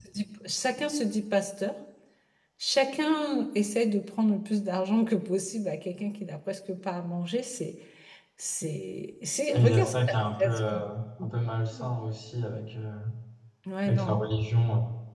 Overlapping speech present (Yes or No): Yes